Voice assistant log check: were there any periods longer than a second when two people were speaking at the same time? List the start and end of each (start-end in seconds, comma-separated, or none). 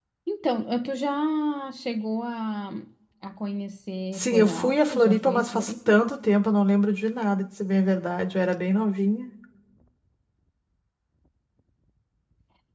4.1-5.9